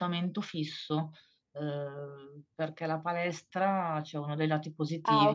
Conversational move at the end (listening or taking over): listening